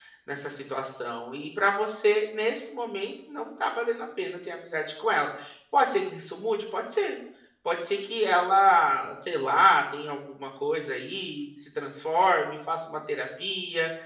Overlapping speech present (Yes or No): No